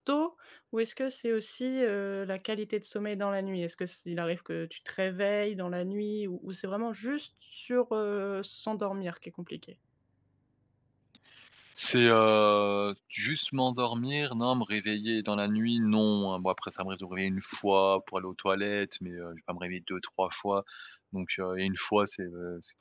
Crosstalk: none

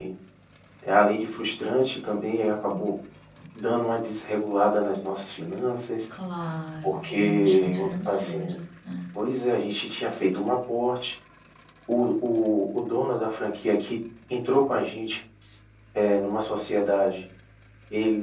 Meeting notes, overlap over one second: present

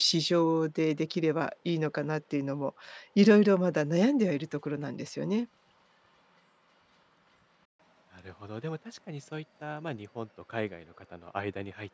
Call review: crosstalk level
none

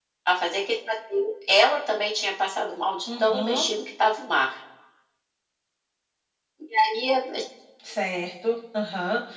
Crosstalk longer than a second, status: none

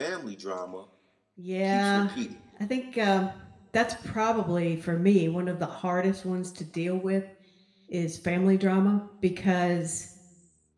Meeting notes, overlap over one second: none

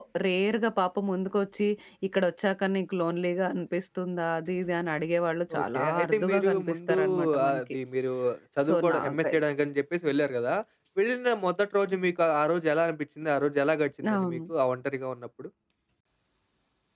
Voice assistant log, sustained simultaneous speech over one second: present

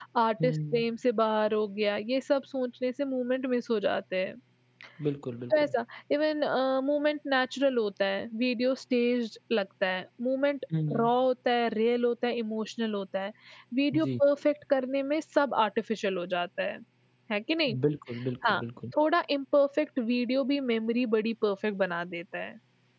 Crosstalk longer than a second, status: none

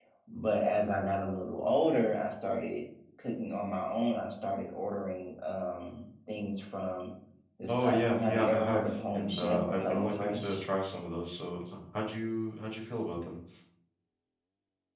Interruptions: present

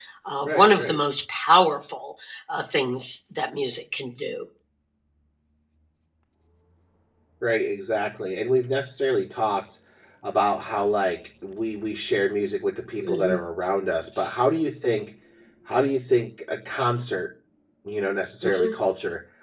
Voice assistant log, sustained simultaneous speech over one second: none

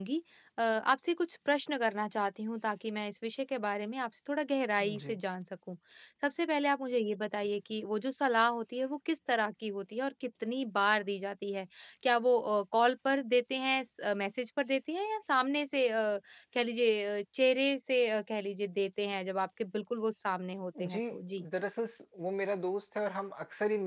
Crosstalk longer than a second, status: none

